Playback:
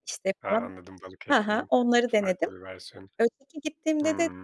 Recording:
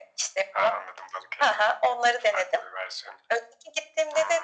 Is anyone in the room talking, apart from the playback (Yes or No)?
No